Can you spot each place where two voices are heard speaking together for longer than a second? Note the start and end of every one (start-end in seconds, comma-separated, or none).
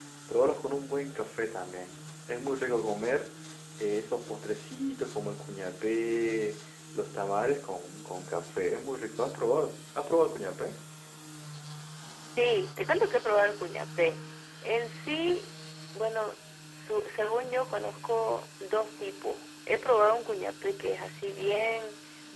none